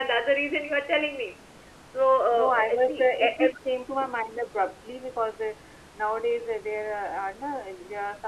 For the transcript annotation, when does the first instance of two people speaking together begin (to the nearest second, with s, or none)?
2 s